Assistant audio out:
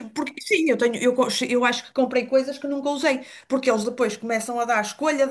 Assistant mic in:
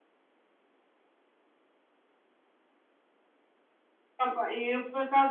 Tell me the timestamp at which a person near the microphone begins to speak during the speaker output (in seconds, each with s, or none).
4.2 s